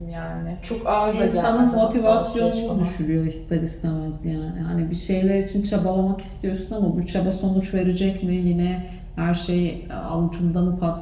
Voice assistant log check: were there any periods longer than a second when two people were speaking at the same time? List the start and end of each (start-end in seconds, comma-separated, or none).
1.1-3.0